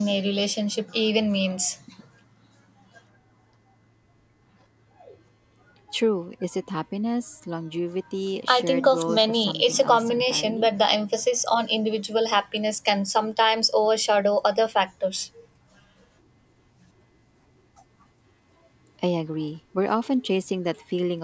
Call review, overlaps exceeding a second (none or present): present